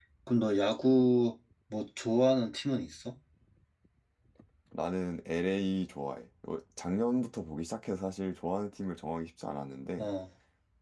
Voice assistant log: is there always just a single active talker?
Yes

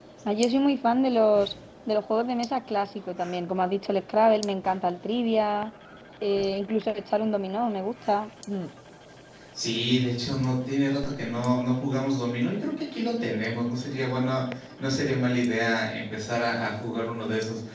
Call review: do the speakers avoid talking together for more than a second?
Yes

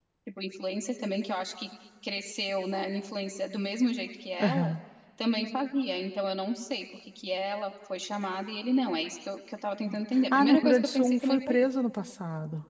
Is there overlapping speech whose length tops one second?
Yes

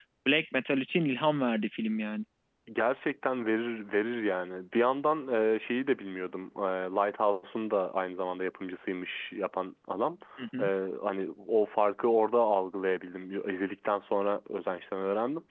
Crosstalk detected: No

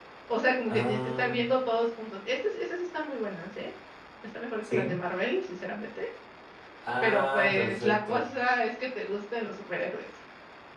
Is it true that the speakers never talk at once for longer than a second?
No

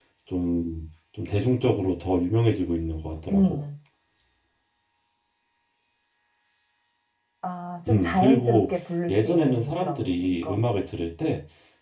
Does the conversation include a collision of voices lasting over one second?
Yes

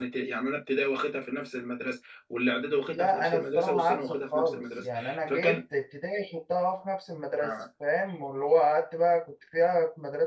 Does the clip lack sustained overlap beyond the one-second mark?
No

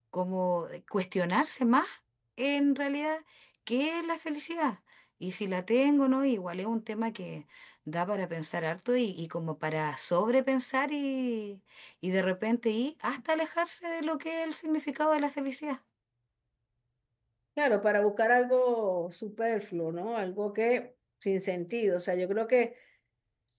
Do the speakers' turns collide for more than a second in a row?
No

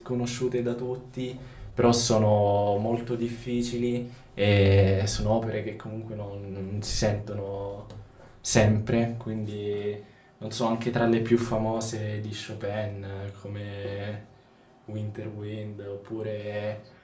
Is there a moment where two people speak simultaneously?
No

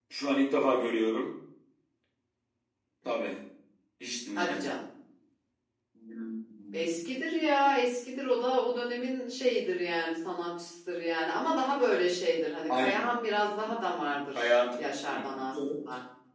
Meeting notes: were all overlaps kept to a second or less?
No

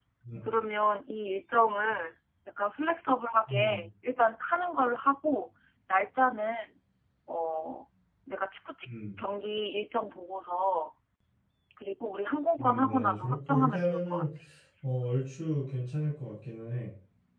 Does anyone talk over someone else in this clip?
Yes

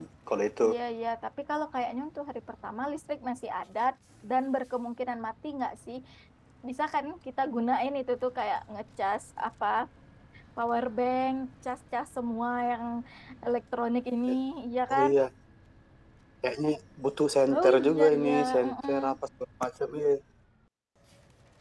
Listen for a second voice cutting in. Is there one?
Yes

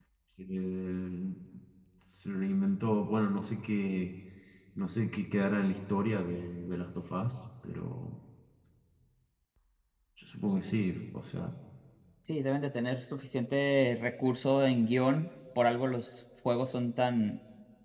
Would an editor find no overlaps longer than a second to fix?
Yes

